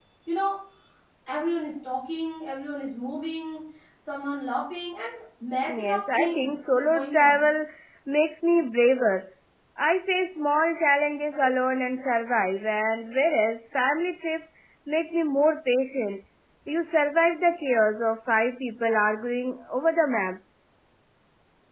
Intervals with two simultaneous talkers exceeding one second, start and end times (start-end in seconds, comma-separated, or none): 5.7-7.5